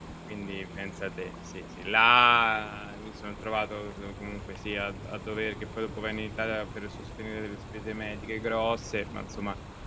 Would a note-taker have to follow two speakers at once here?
No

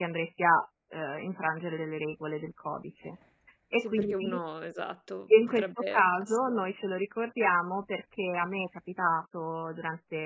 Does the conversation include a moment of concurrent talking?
Yes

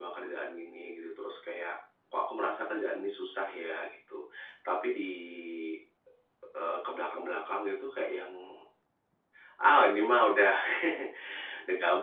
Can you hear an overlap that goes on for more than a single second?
No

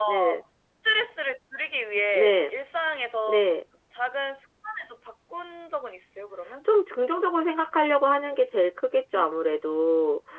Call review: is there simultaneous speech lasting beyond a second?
No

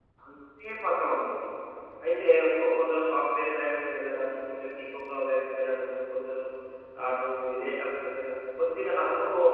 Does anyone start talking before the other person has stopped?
No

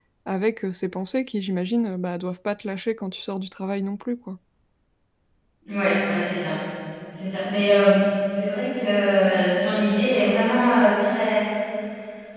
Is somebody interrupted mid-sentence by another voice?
No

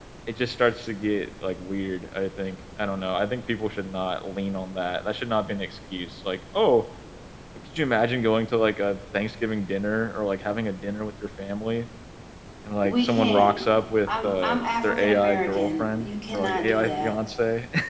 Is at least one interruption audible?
Yes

